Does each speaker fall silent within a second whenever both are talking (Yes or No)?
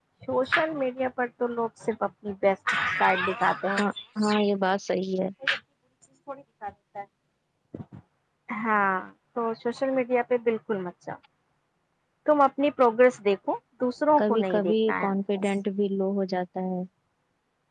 No